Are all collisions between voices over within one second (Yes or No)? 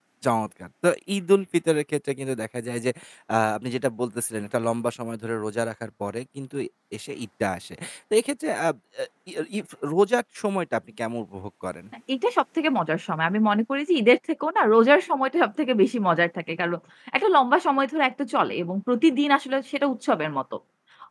Yes